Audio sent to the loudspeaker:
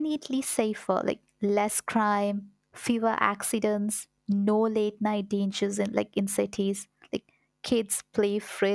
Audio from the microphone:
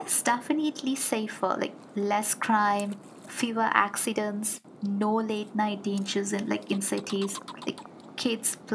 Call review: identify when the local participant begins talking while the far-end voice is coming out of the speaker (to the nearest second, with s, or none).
none